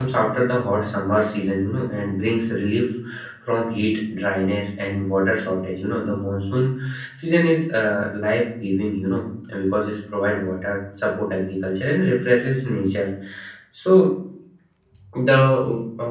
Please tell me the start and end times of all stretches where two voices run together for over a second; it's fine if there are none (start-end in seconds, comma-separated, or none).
none